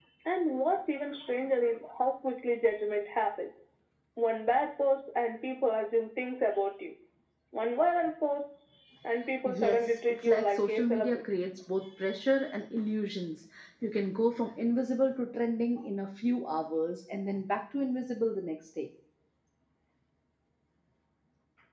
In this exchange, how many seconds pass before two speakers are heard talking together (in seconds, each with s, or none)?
9.4 s